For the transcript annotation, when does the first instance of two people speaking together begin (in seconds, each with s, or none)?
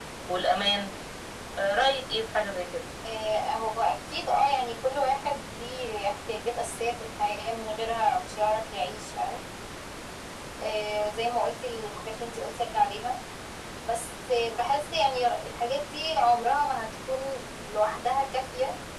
none